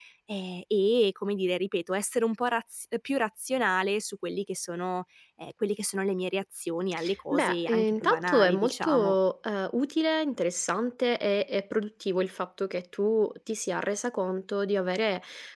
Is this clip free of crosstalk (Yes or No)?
No